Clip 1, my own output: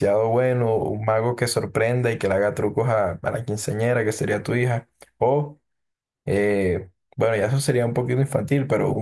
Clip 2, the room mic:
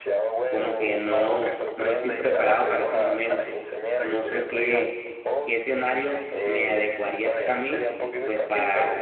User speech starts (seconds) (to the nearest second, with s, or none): 0 s